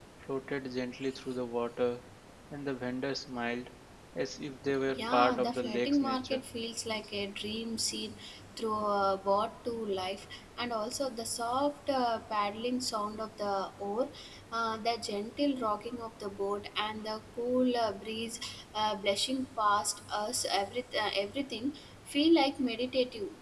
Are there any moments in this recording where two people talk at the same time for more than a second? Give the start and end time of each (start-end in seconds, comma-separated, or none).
4.9-6.4